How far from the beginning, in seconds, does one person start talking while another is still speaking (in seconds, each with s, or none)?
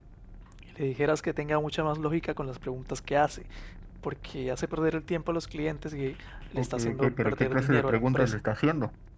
6.5 s